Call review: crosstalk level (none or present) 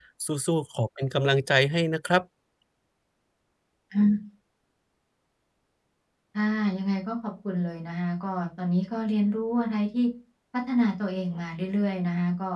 none